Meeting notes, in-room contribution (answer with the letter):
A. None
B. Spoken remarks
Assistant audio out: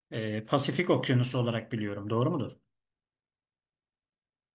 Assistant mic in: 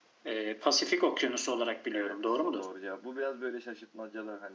B